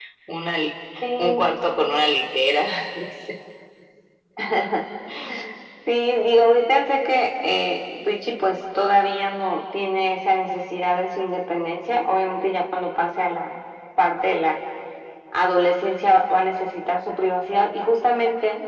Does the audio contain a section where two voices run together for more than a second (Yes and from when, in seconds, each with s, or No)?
No